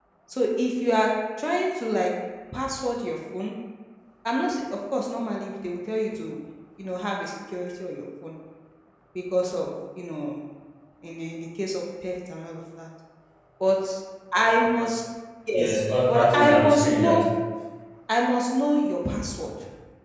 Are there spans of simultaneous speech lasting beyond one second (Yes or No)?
Yes